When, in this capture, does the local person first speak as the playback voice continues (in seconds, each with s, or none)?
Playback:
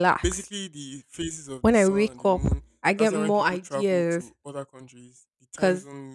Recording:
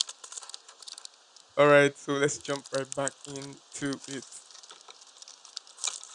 1.6 s